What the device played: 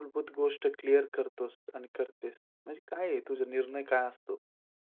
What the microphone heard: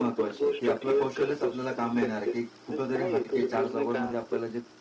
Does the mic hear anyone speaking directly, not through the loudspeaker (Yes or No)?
Yes